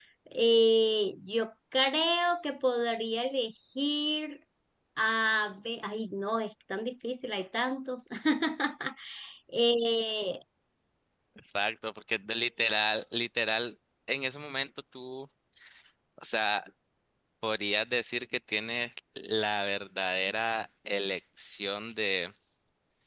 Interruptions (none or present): none